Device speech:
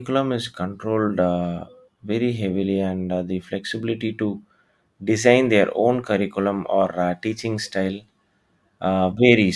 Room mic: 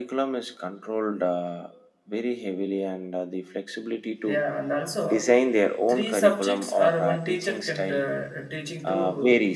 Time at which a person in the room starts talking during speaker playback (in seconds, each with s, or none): 4.2 s